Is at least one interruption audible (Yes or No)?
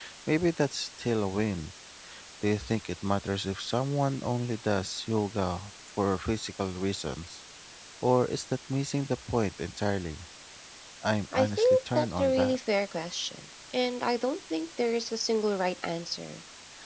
Yes